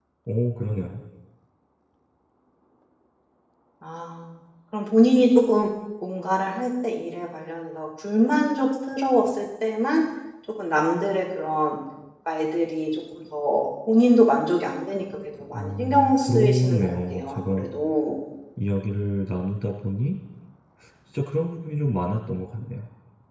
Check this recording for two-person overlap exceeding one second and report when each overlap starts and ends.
15.5-17.6

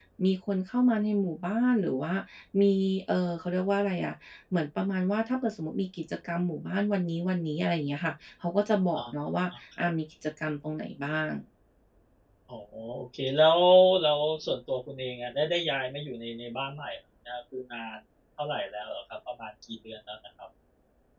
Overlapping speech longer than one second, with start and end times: none

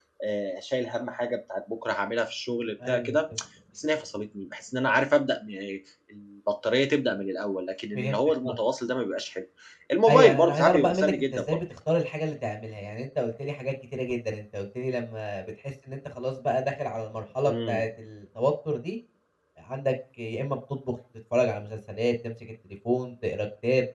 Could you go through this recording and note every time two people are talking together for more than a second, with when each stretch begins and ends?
10.1-11.6

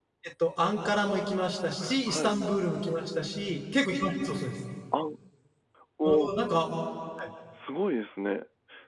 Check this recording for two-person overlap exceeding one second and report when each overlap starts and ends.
none

